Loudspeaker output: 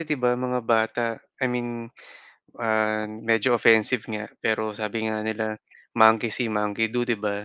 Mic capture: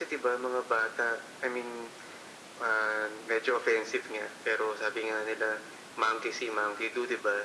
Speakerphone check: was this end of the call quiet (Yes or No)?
Yes